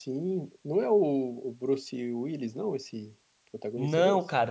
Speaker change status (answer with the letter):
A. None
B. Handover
B